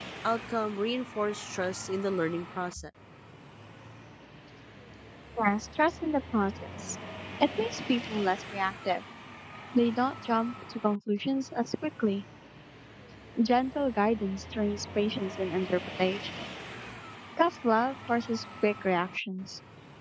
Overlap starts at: none

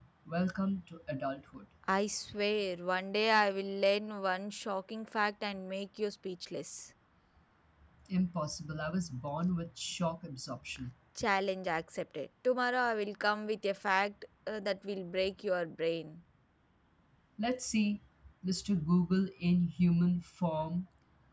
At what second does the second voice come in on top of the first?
none

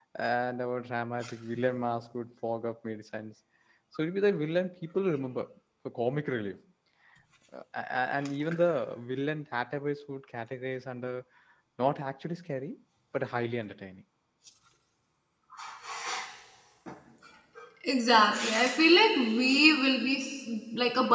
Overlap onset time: none

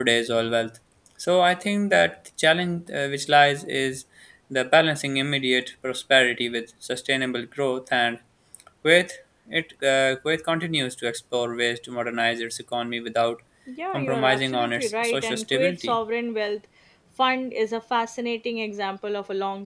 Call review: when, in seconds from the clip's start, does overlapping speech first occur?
14 s

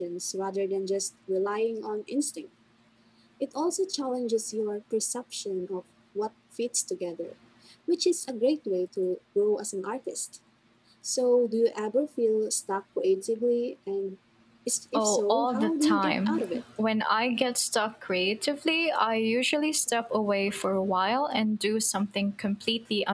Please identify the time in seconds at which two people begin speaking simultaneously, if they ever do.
15 s

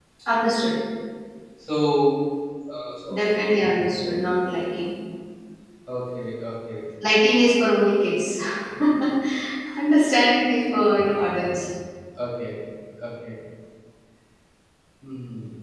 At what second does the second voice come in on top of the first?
none

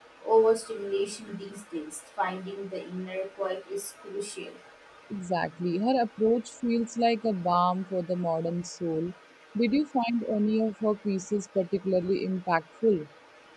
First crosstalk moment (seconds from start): none

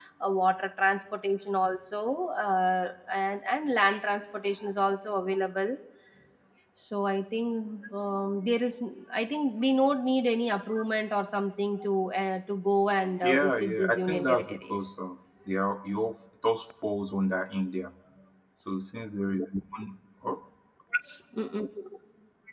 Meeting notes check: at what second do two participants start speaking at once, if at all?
13 s

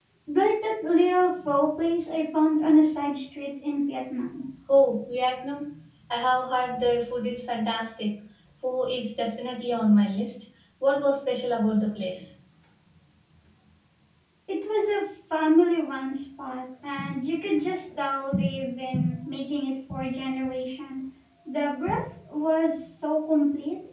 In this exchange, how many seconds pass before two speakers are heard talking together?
none

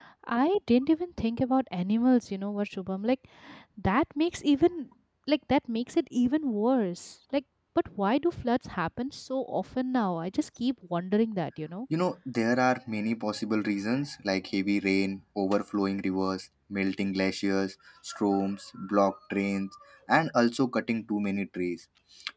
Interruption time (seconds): none

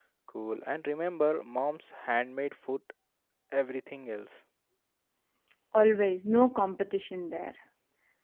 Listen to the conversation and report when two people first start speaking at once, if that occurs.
none

